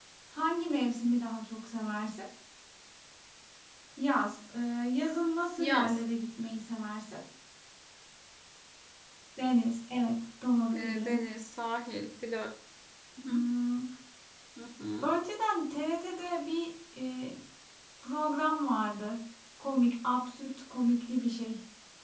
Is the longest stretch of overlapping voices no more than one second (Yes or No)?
Yes